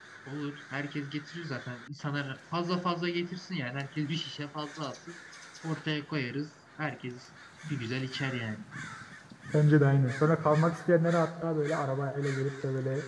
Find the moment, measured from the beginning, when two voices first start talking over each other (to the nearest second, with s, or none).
none